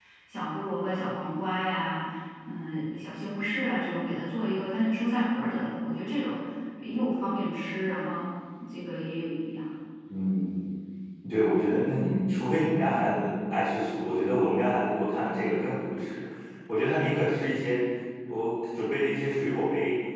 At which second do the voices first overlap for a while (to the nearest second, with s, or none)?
none